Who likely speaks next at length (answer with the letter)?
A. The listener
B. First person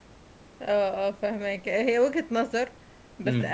B